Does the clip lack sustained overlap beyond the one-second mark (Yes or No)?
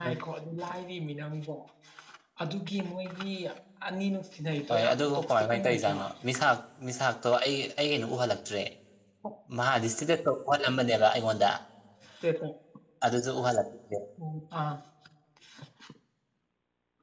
No